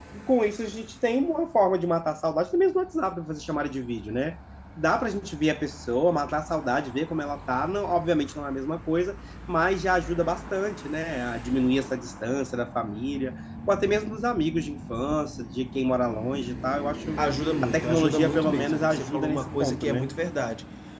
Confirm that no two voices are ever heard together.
No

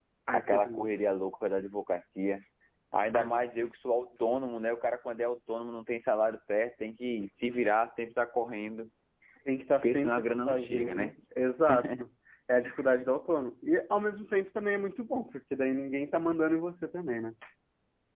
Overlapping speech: Yes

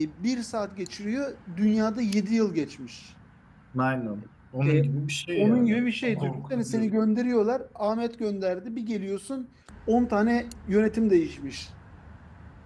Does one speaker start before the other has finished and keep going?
Yes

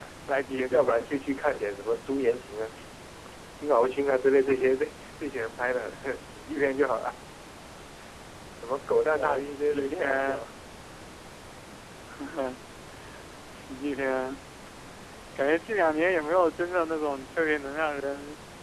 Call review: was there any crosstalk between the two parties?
Yes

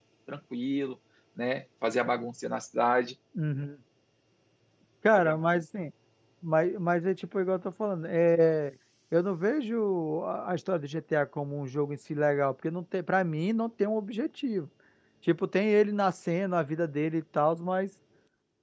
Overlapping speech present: No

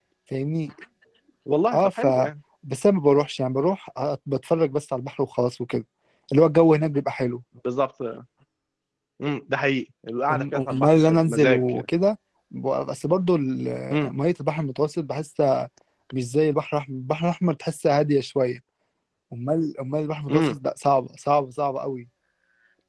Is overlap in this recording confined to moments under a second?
No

